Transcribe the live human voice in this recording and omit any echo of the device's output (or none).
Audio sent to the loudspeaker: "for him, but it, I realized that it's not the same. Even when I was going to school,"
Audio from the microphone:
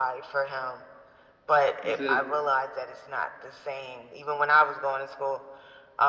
"He says,